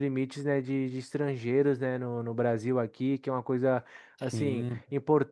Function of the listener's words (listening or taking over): listening